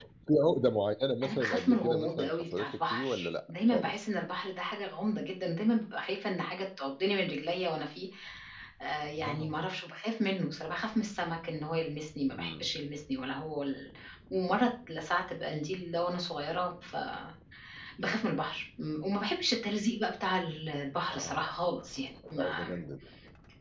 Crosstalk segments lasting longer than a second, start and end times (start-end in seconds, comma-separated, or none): 1.2-4.0